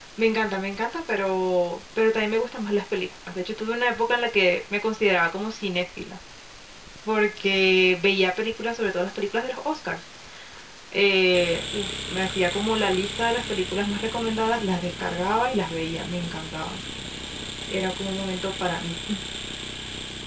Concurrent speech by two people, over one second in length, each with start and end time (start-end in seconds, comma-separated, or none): none